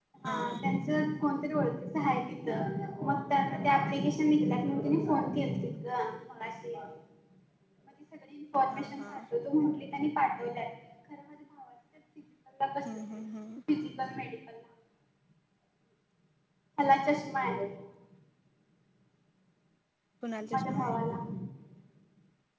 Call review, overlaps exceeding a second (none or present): none